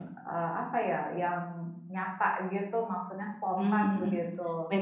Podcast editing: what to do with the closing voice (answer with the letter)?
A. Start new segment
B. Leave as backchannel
A